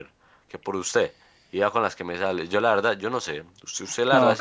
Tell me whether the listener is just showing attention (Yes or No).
No